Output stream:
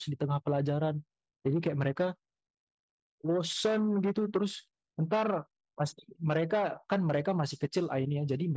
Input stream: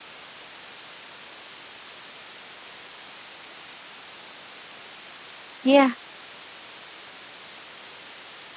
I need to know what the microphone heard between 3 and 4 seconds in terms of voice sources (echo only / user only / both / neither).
neither